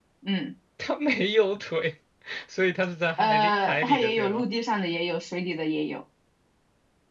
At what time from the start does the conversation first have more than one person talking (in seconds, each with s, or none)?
3.2 s